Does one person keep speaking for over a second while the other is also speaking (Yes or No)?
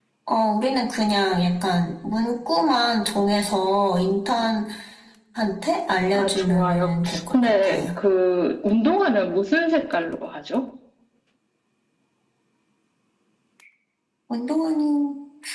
Yes